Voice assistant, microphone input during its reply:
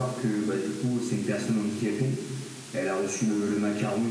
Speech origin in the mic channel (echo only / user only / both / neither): echo only